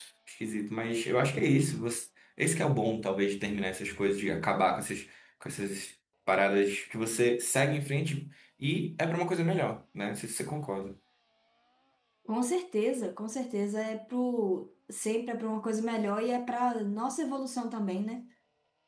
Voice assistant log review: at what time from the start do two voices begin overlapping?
none

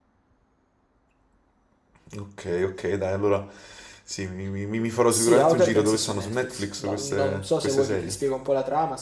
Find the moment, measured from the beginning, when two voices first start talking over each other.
5.1 s

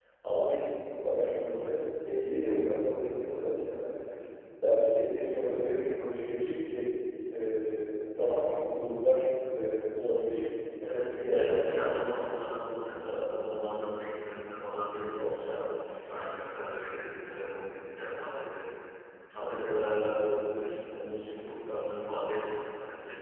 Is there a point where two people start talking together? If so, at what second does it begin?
10.8 s

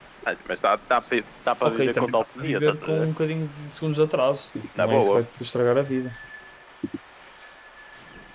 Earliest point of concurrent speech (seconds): 1.6 s

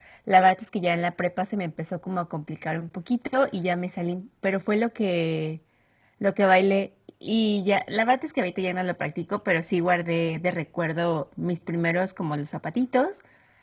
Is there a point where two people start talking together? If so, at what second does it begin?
none

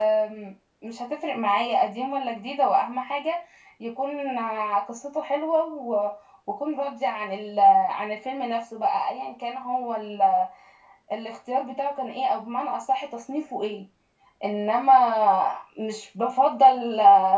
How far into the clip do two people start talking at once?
none

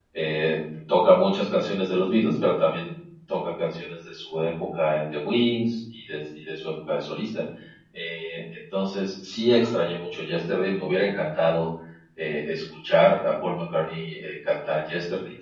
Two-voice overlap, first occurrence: none

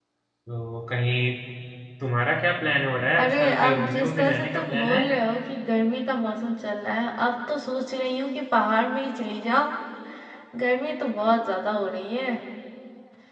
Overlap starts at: 3.2 s

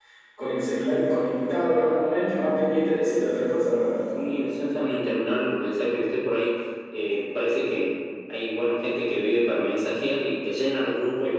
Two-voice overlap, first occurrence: none

